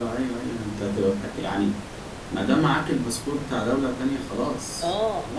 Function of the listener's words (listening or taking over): taking over